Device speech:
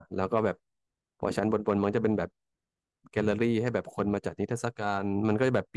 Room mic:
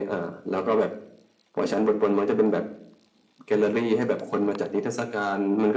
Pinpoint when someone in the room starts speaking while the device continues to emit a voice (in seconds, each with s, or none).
none